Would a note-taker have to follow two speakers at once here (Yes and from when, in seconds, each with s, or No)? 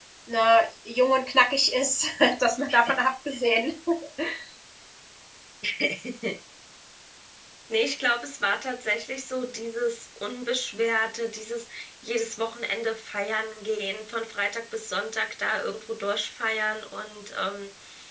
No